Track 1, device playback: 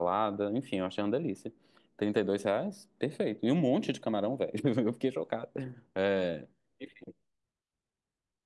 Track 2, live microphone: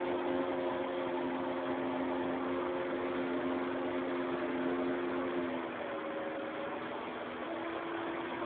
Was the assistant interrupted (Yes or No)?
No